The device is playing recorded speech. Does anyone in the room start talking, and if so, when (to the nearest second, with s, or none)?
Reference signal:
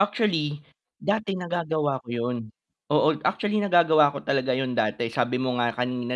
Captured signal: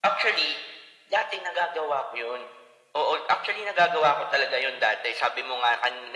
none